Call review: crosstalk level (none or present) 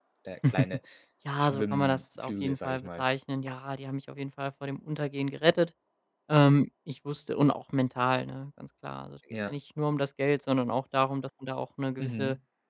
present